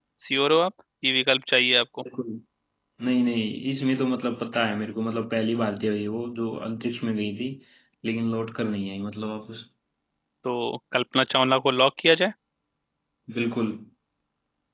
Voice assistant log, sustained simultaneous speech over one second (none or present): none